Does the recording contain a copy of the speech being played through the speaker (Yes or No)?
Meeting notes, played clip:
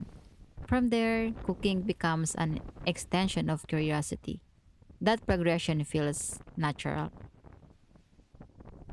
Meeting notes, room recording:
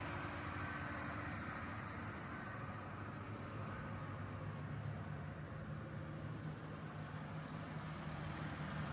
No